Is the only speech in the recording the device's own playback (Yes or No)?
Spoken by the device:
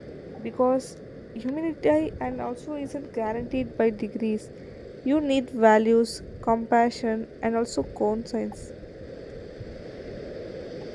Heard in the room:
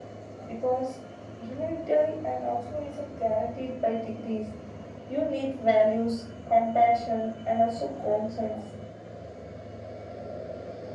Yes